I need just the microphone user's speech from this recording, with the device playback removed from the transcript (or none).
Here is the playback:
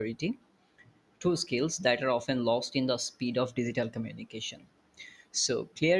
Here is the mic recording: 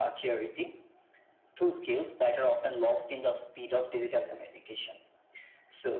none